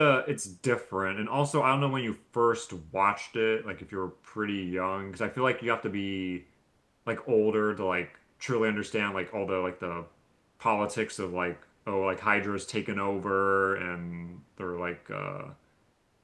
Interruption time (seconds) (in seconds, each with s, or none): none